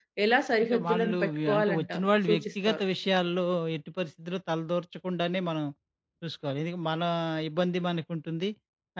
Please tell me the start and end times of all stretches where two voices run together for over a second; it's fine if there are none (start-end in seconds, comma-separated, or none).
0.6-2.8